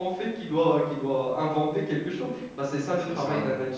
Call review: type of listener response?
taking over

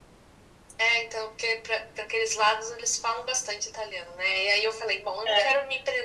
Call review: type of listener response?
listening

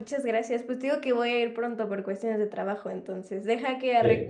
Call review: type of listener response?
listening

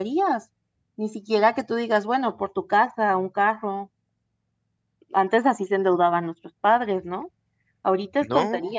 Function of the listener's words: listening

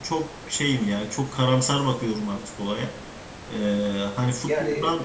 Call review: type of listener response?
listening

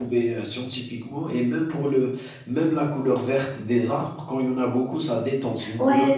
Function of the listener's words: taking over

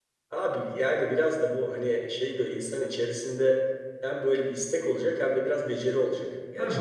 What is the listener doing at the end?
taking over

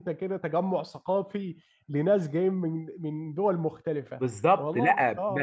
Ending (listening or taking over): taking over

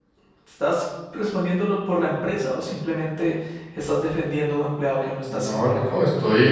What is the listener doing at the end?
taking over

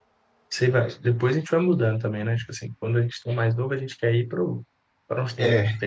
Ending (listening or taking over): listening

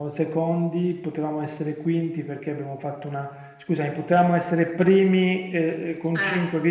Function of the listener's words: listening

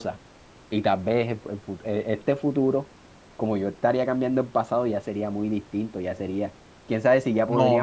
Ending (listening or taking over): taking over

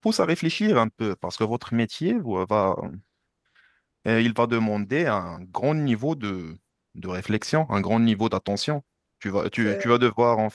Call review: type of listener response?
listening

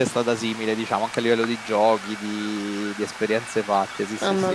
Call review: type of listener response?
taking over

